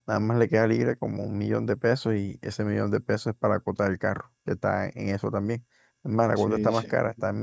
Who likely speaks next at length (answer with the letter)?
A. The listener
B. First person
B